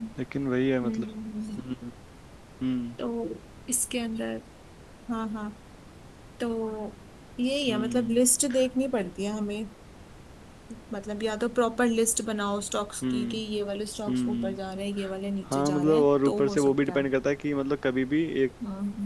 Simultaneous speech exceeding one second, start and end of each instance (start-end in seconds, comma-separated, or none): 15.5-17.1